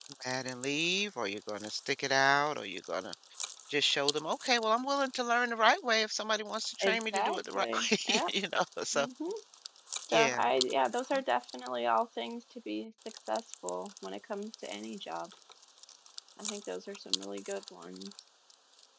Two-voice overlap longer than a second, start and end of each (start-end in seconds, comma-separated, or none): 6.8-8.2